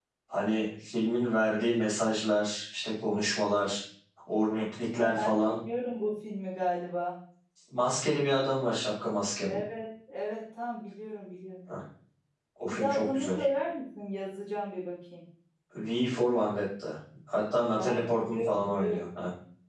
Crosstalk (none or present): present